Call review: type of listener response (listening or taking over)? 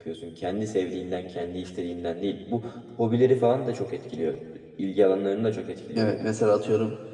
taking over